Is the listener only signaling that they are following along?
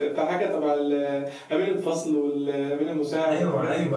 No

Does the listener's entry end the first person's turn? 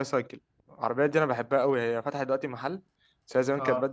No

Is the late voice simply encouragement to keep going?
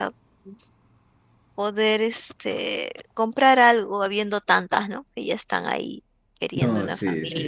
No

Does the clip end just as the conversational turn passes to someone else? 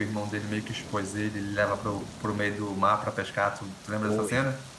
Yes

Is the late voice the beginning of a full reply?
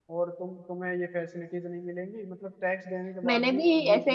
Yes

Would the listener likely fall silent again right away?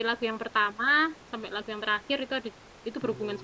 No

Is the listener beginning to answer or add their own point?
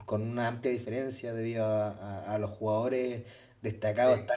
No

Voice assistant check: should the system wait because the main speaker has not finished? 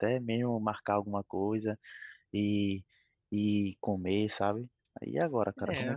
No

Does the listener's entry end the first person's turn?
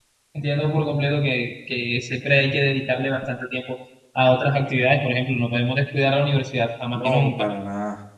Yes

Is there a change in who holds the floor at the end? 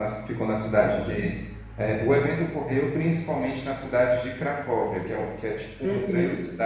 No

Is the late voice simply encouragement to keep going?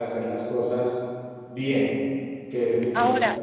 No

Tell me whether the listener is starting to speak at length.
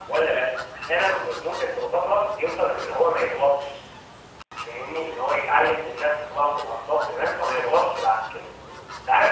No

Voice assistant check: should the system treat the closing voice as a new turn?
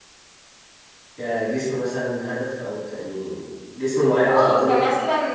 Yes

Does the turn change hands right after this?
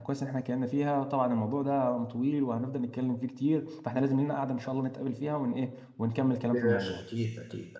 Yes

